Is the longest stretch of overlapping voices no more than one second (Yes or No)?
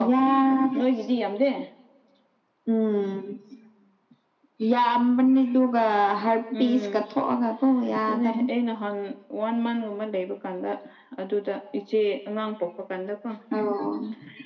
Yes